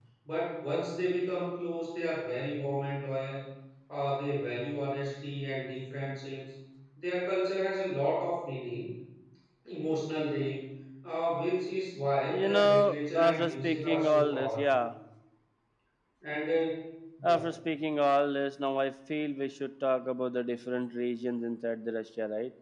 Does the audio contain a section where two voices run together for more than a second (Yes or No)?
Yes